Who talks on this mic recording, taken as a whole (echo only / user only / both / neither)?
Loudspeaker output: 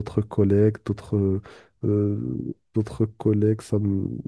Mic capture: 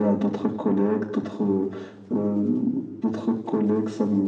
echo only